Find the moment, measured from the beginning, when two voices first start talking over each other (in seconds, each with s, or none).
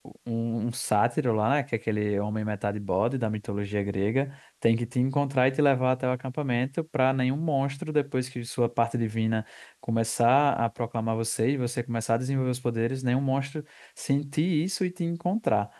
none